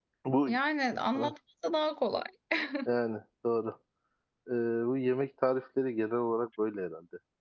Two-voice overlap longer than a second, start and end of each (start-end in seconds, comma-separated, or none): none